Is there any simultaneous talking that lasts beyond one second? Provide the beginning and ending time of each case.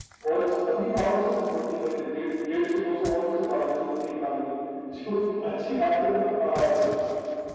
none

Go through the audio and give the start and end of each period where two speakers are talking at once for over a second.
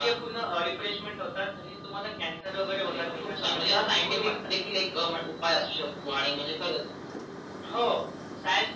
2.9-4.5

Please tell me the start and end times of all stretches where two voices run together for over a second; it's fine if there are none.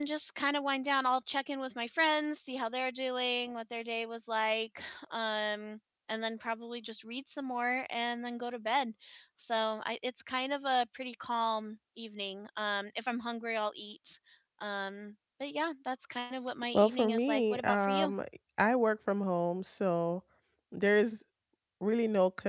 16.7-18.1

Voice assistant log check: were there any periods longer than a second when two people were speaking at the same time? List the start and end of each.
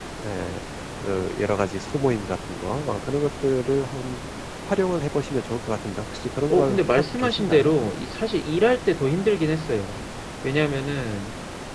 6.5-7.7

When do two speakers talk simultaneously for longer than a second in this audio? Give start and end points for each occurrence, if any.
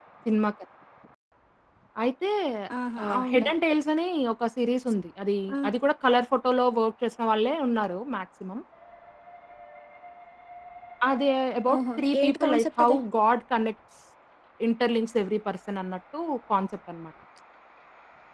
11.7-13.0

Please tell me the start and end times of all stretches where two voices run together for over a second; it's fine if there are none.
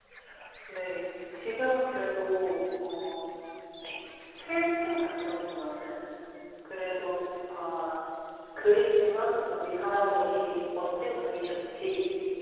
9.9-11.2

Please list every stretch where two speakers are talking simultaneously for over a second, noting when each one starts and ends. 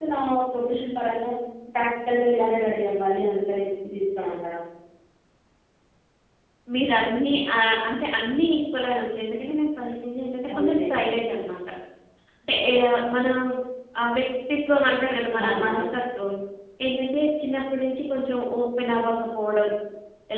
none

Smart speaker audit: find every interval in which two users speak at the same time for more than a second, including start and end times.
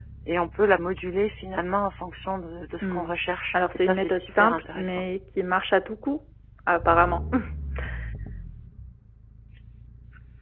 3.7-5.0

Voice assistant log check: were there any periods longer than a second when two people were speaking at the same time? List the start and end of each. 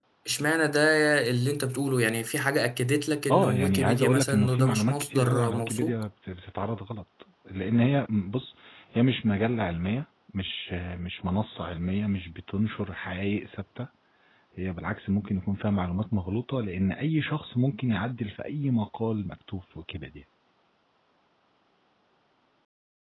3.3-5.9

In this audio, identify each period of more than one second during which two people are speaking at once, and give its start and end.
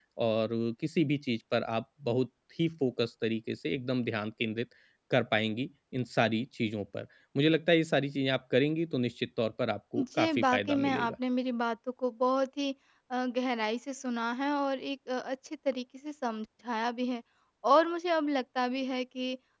10.0-11.2

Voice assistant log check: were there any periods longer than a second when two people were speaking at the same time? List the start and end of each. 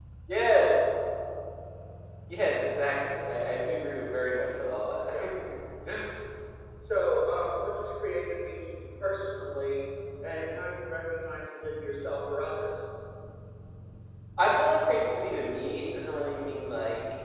none

